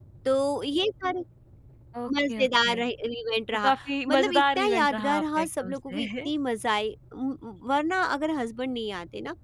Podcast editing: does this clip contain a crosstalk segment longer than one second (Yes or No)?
Yes